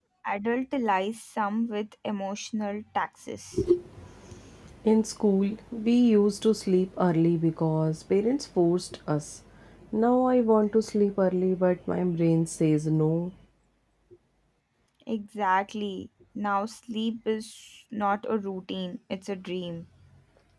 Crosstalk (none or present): none